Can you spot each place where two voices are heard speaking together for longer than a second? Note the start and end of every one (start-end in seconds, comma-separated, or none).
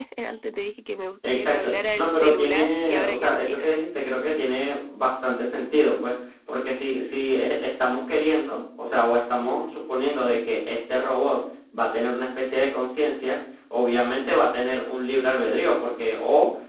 1.2-3.7